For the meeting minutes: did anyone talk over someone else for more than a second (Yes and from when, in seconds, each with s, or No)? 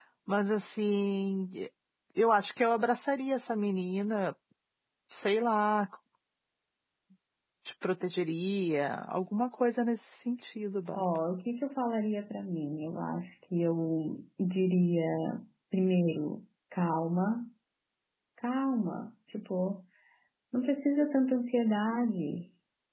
No